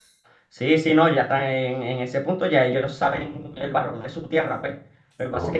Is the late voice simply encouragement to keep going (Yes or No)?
Yes